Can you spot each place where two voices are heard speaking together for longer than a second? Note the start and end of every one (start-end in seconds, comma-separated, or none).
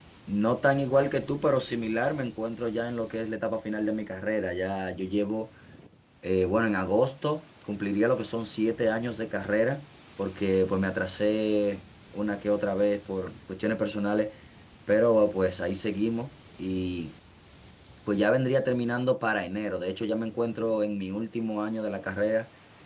none